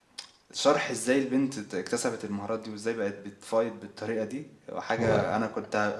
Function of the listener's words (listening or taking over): listening